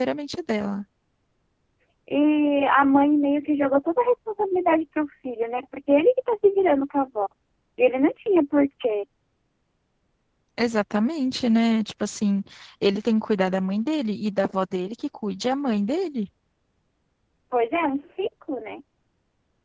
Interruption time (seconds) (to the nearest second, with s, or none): none